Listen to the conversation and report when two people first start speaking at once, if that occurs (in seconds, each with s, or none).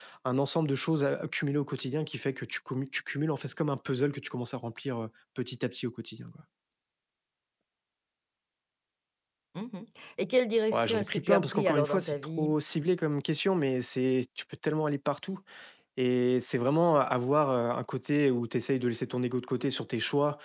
10.7 s